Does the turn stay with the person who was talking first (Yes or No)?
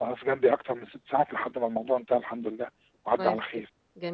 No